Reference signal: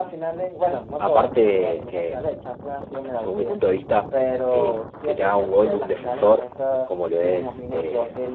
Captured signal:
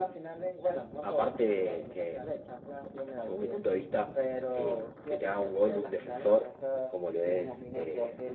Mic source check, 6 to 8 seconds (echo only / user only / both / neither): echo only